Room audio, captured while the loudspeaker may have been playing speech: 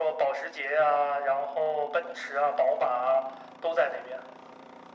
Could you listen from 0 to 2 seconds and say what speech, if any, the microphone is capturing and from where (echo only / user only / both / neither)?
echo only